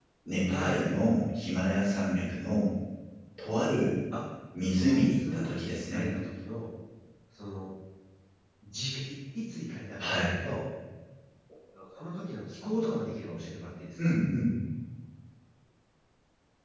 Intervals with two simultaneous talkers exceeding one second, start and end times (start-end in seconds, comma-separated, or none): 4.7-6.1